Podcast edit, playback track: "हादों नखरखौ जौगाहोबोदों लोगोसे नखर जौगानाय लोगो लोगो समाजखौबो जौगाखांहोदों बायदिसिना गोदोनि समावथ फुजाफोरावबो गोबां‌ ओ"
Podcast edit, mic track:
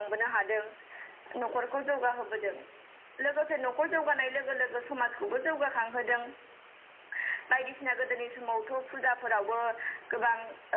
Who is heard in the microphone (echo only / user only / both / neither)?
echo only